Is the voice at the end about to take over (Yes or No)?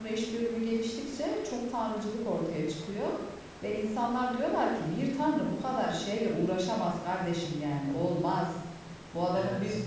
No